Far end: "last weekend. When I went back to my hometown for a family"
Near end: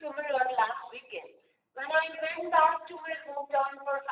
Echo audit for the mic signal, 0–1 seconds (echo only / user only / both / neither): echo only